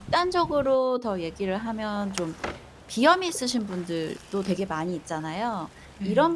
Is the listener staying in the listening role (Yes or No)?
Yes